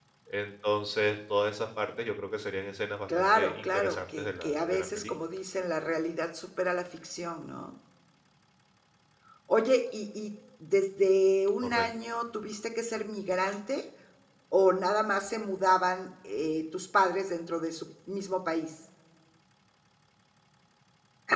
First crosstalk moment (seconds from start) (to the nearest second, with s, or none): 3 s